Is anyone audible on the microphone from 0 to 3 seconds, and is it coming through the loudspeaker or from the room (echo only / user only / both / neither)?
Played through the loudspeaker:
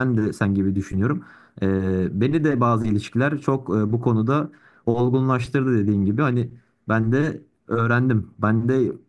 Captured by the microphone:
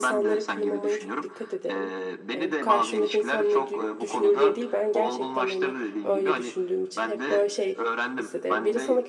both